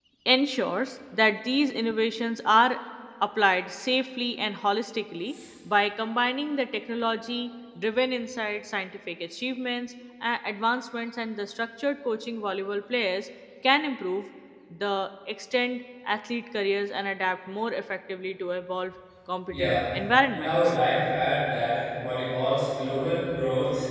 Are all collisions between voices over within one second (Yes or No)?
Yes